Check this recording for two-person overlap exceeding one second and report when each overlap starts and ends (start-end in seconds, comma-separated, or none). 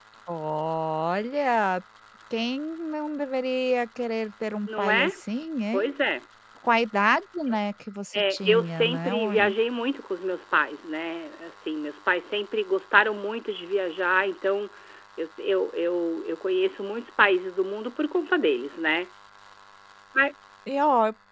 8.2-9.6